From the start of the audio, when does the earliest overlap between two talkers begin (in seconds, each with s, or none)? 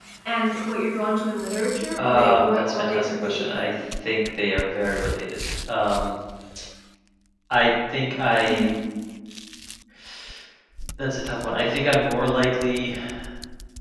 2.0 s